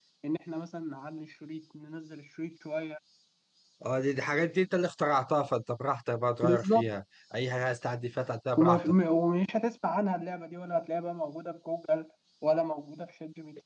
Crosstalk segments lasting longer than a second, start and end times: none

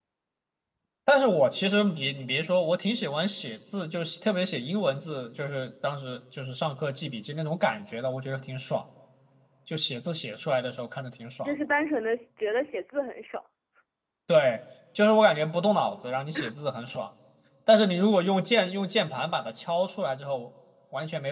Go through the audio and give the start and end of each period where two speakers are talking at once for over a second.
none

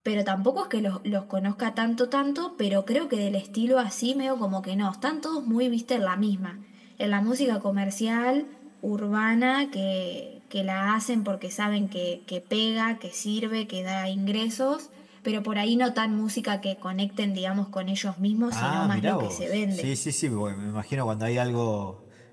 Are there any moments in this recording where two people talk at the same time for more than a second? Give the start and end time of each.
18.5-19.9

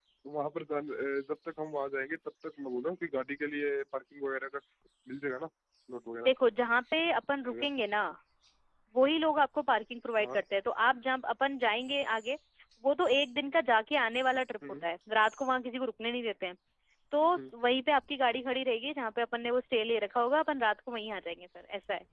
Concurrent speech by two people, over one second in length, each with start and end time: none

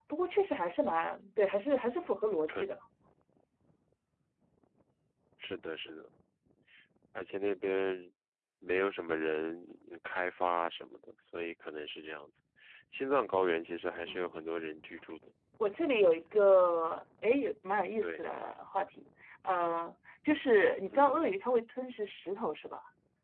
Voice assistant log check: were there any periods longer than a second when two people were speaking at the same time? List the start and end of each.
none

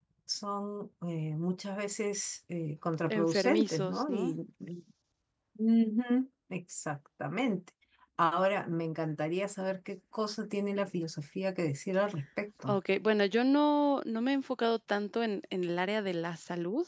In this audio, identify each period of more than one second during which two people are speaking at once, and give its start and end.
3.1-4.3

